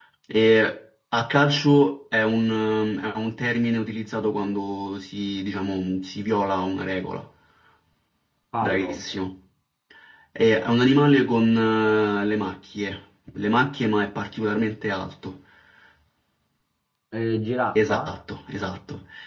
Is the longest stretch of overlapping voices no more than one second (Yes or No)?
Yes